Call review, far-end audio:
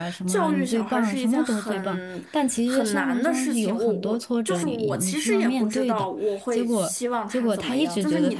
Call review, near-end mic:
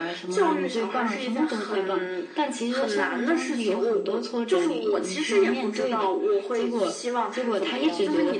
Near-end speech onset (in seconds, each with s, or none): none